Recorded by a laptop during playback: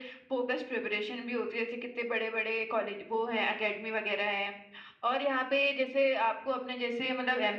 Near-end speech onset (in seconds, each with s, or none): none